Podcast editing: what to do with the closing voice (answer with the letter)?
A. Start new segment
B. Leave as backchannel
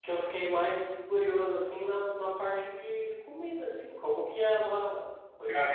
B